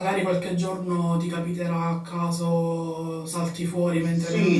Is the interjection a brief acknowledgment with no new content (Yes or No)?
No